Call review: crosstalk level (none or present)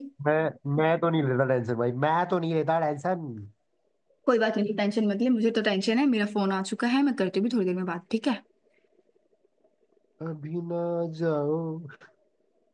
none